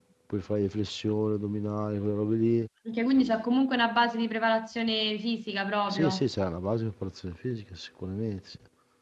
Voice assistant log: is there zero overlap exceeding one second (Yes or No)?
Yes